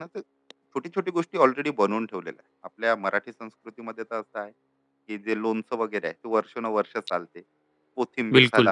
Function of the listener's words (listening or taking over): listening